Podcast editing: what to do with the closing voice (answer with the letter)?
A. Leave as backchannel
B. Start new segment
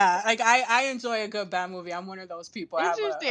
B